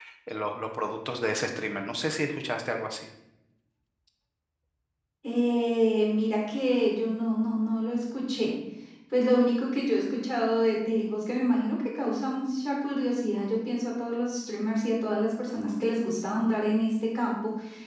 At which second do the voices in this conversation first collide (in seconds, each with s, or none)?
none